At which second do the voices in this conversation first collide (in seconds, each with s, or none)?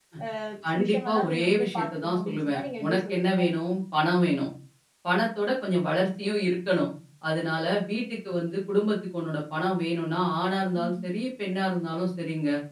0.8 s